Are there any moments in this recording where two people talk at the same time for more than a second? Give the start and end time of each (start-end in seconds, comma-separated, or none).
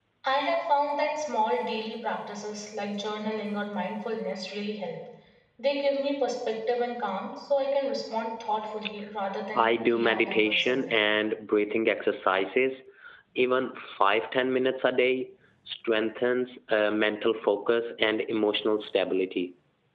9.6-10.9